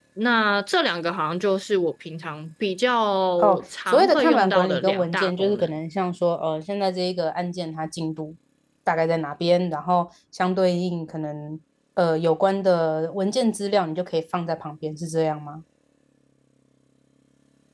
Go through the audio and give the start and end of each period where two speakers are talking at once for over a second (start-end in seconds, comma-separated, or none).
3.4-5.7